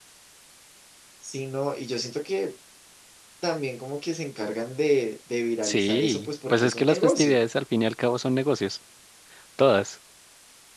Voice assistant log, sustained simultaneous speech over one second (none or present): present